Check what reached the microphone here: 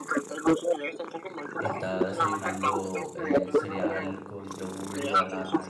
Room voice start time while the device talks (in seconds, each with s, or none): 1.6 s